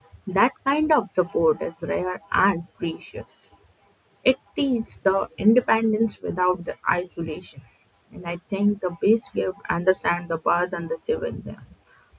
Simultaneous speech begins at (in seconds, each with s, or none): none